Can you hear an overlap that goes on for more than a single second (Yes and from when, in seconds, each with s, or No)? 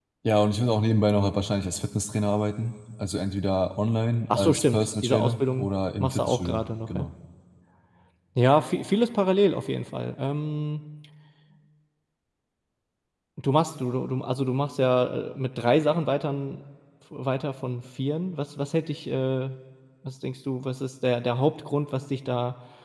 Yes, from 4.3 s